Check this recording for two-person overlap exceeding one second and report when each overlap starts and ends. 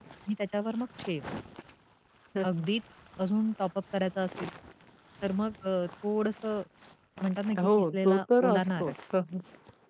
7.6-8.9

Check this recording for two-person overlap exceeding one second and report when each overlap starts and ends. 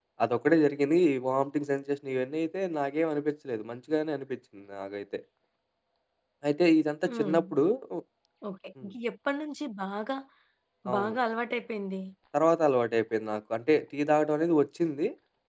none

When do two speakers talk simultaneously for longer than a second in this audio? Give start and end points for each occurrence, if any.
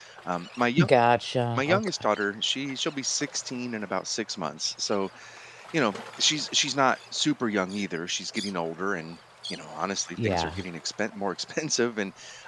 none

